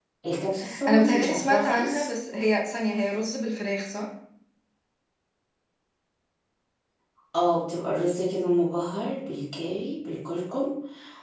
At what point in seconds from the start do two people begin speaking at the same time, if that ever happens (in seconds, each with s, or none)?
0.9 s